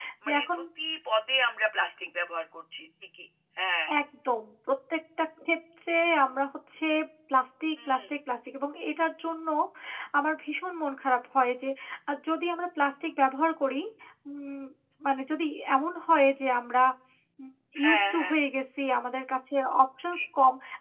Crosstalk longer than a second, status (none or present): none